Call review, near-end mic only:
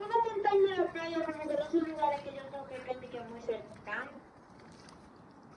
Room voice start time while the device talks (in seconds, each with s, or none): none